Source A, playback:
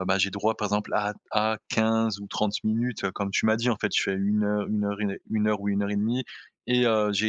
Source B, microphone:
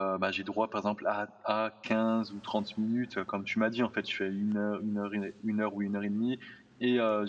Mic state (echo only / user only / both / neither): echo only